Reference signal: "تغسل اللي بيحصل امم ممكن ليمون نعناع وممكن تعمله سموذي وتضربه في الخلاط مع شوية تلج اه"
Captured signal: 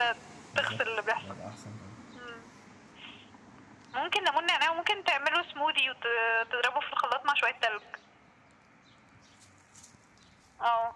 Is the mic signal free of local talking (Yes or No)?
No